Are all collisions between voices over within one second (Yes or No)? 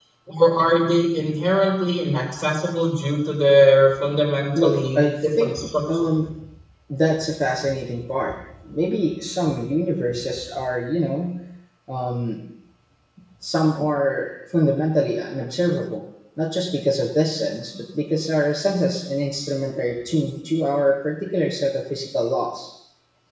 No